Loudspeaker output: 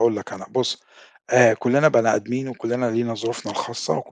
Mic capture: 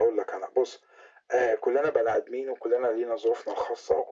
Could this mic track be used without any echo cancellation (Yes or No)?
No